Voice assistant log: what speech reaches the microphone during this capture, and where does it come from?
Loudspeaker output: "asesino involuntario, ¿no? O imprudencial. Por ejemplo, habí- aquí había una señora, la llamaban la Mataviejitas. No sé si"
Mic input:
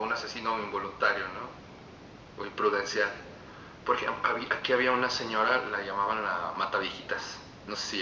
echo only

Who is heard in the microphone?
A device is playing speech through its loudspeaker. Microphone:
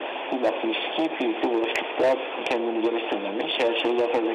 echo only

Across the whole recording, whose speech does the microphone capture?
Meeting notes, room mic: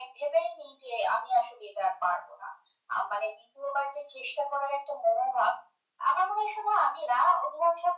echo only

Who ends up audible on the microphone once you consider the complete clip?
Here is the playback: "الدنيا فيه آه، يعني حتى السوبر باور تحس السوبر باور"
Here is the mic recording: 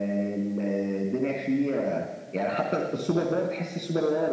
echo only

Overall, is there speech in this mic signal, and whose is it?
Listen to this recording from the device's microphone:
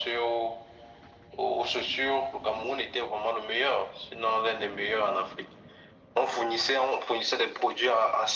echo only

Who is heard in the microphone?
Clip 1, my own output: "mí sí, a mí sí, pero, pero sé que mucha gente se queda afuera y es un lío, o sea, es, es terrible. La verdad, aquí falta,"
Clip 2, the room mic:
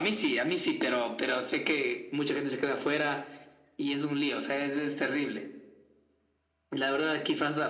echo only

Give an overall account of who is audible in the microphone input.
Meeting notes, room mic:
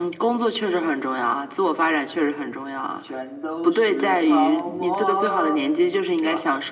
echo only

